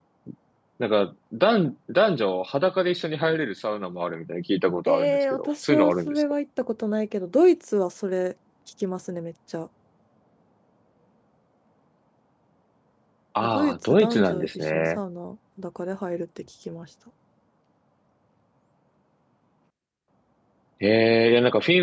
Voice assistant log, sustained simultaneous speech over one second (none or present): present